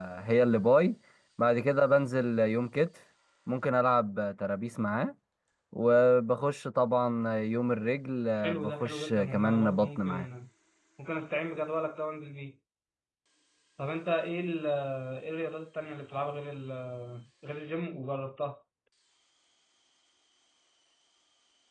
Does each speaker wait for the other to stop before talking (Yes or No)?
No